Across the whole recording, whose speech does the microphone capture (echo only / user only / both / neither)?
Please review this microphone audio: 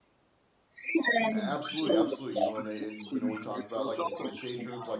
both